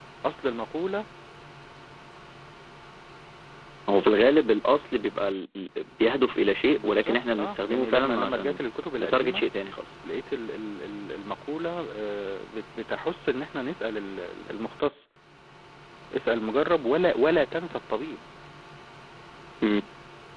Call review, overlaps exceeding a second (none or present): present